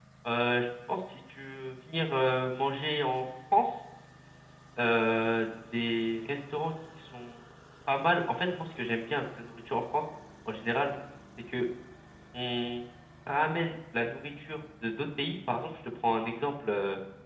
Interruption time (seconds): none

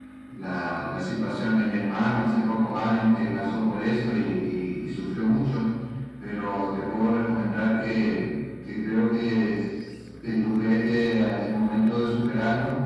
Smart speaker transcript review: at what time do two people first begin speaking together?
none

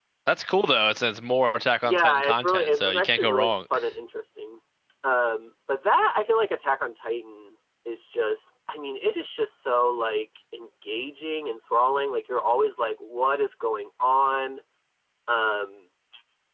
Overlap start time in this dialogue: 1.8 s

